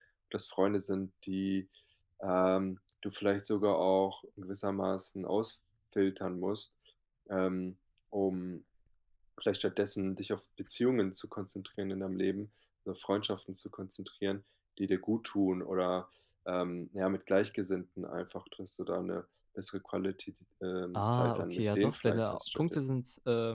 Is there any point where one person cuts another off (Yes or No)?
Yes